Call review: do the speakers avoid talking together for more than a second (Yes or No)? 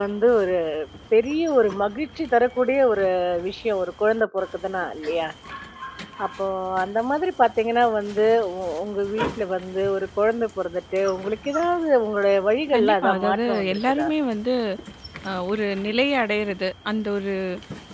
No